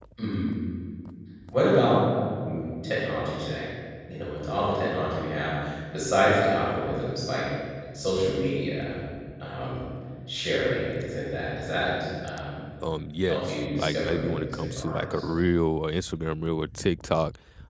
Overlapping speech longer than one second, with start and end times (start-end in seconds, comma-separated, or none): 13.2-15.2